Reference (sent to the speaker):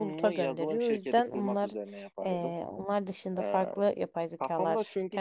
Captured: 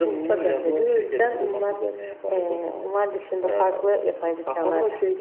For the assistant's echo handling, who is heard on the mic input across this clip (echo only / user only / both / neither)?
echo only